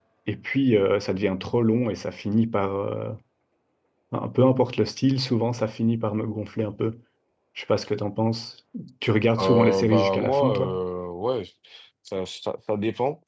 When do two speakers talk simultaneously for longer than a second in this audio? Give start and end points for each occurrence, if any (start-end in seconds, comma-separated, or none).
9.4-10.8